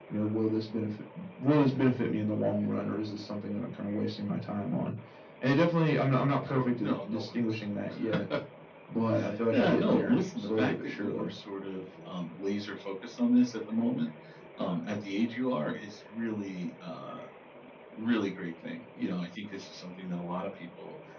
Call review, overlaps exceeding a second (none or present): present